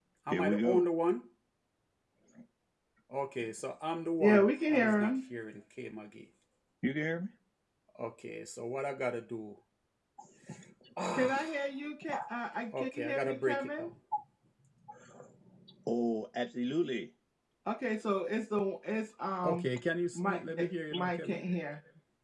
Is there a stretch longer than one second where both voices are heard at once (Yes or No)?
Yes